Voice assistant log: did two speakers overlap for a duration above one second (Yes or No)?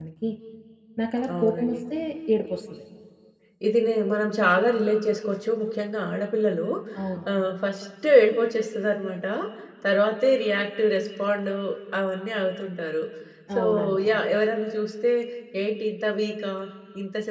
No